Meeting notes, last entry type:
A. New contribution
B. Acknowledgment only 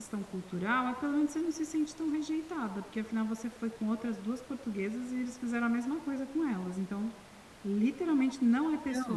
A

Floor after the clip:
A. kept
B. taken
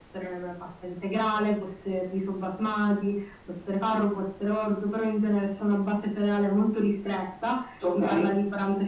A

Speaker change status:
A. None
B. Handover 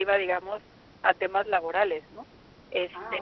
A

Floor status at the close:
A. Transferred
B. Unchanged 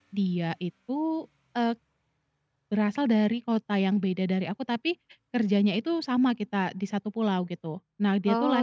B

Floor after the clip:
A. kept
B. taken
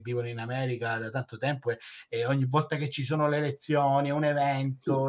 B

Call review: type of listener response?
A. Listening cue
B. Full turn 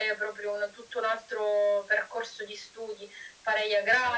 A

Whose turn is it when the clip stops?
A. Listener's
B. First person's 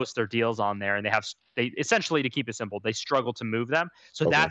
B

